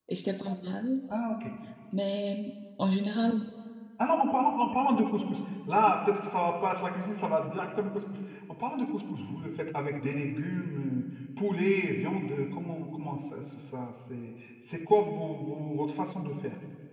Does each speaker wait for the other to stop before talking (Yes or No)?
Yes